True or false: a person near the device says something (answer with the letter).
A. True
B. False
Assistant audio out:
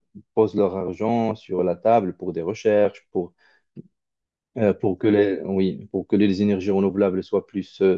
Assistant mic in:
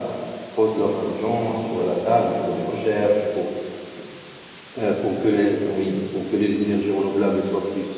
B